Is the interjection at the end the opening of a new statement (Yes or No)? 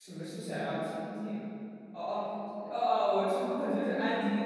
Yes